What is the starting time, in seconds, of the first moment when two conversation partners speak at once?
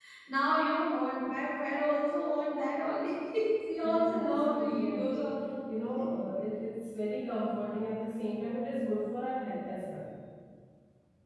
3.8 s

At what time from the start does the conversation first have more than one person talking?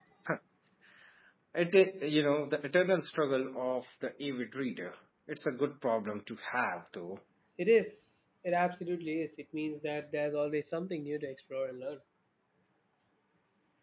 none

